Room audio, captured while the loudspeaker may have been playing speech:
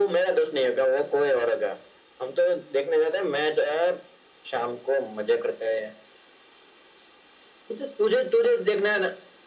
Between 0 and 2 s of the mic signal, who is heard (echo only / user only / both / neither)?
echo only